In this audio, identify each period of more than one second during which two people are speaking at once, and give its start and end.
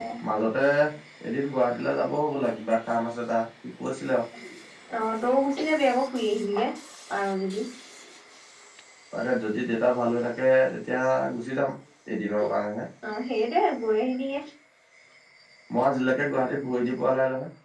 none

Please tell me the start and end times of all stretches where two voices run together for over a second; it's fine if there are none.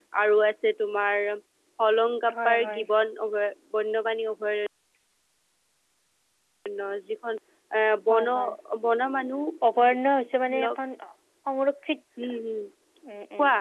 none

